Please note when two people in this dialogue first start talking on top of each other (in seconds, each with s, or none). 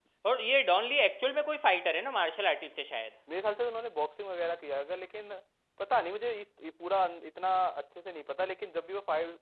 none